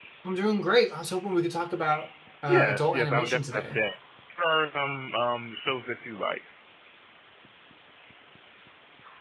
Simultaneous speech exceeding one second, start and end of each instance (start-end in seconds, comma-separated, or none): 2.5-3.8